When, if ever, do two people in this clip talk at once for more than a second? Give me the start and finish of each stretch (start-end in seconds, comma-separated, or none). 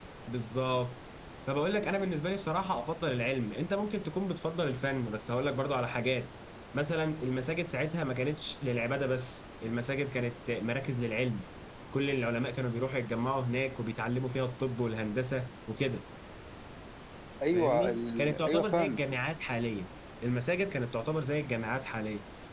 17.5-19.0